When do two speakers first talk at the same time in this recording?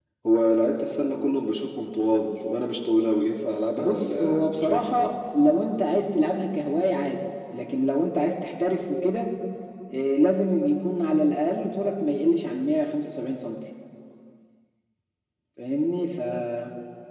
3.8 s

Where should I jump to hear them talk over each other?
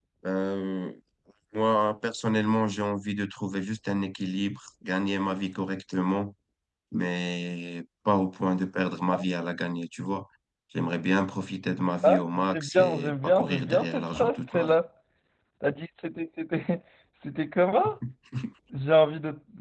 12.0 s

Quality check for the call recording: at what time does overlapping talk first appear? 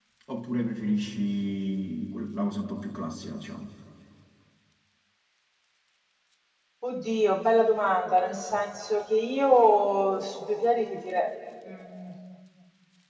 none

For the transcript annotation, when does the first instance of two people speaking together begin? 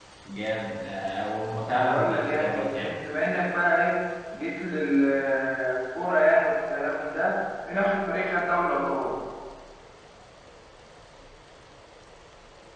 1.6 s

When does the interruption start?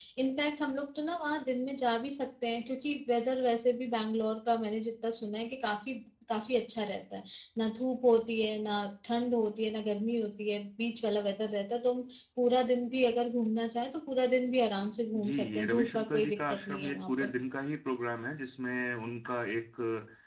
15.1 s

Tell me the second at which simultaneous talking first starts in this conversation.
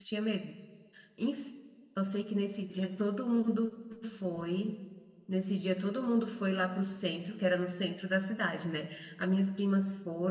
none

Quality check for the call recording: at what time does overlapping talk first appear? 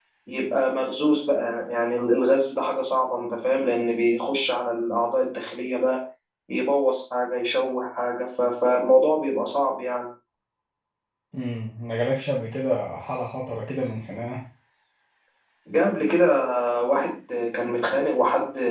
none

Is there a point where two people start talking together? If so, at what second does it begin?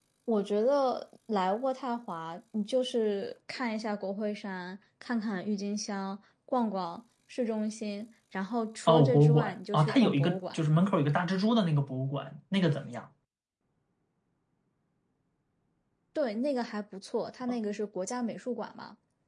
8.9 s

